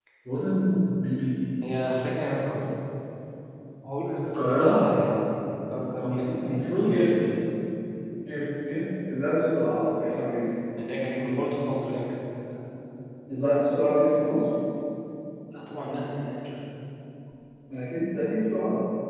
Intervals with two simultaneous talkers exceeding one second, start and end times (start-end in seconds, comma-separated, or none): 6.0-7.2